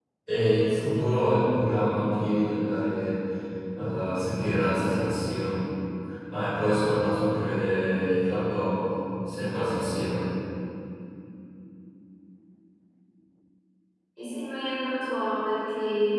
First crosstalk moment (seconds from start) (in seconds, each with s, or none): none